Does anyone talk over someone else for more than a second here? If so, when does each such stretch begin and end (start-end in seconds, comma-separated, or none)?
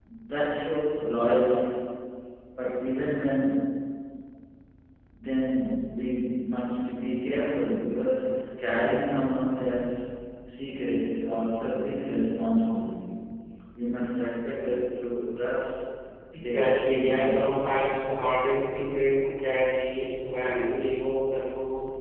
16.4-17.6